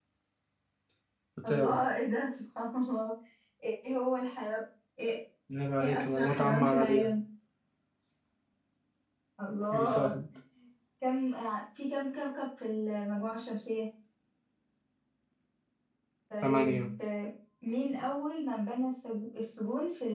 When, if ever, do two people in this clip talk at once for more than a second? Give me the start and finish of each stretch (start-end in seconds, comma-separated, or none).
5.8-7.1